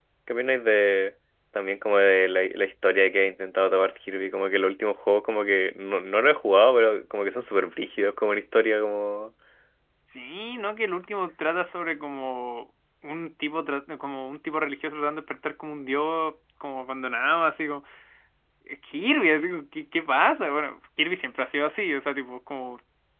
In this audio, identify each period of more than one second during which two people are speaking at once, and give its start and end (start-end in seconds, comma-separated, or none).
none